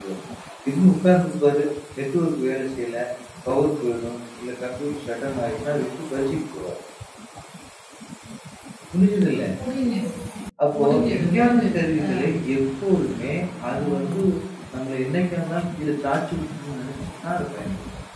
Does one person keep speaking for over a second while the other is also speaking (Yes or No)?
Yes